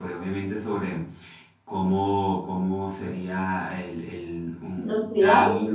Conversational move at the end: listening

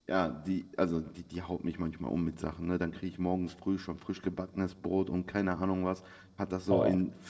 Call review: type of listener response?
listening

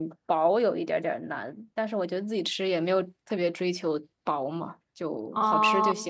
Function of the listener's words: taking over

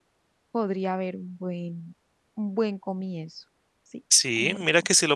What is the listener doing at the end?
taking over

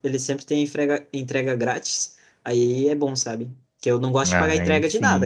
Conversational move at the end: listening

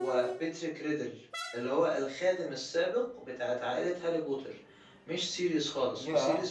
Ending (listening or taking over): taking over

